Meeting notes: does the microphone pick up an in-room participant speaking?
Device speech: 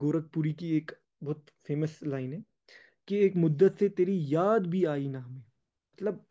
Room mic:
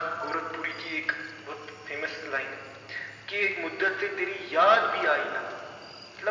No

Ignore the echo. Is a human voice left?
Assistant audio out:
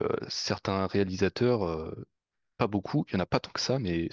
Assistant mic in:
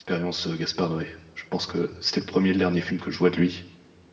Yes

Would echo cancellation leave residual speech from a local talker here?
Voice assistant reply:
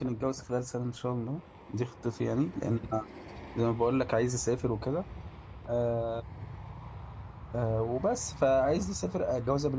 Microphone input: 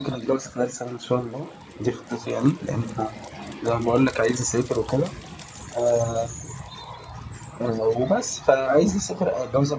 No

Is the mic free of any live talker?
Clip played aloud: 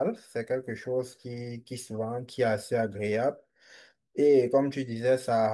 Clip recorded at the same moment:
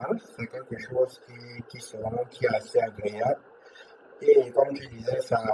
Yes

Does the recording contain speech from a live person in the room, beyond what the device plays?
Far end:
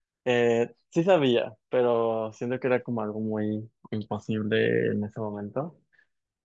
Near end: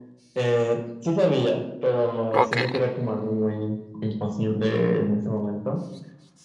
Yes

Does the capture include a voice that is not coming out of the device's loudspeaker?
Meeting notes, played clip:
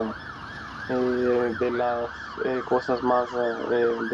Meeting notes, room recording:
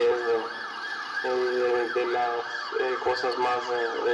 No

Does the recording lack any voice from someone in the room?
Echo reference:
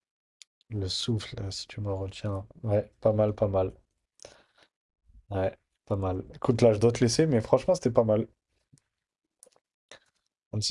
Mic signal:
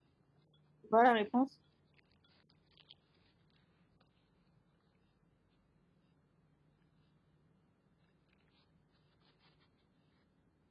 No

